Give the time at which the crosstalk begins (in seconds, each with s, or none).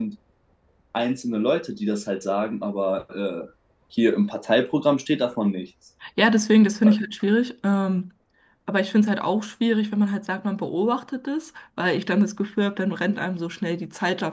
none